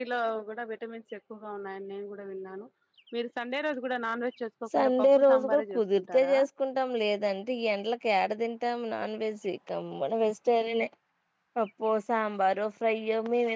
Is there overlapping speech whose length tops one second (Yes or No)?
Yes